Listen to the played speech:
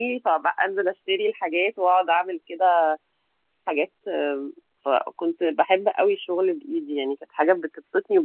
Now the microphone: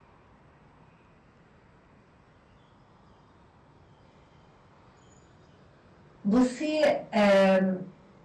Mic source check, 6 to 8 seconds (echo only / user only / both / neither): user only